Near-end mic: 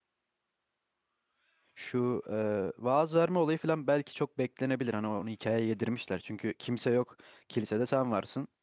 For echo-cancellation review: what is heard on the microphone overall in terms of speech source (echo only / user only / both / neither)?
user only